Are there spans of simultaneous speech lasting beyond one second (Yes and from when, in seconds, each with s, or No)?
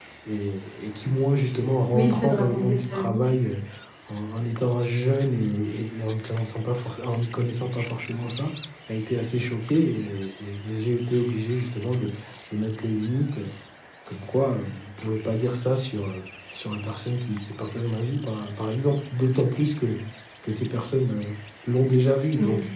Yes, from 1.9 s